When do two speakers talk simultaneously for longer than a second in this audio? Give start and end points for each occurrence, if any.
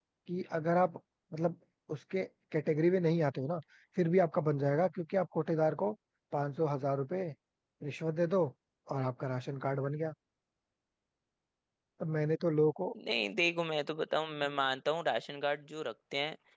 none

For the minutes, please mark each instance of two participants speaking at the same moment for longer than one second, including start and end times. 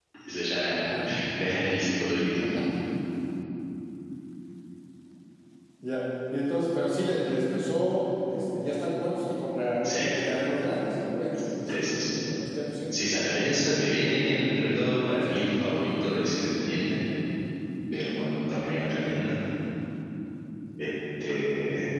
none

